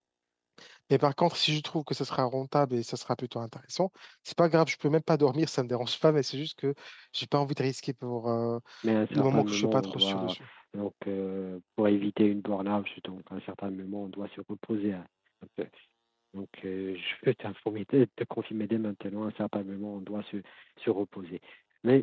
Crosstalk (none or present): present